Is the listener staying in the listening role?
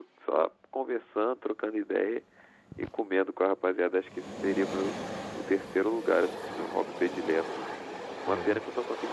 Yes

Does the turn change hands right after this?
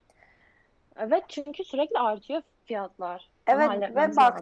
Yes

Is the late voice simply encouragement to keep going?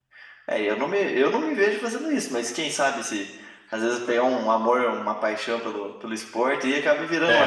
No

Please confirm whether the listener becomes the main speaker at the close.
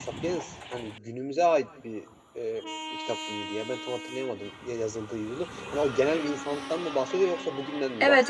Yes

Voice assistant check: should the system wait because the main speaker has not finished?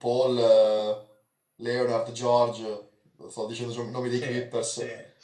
No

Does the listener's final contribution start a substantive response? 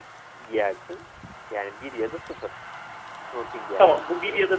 Yes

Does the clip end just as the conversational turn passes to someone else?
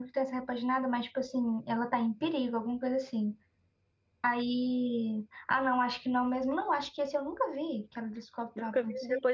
Yes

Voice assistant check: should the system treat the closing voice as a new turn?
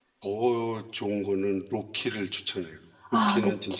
Yes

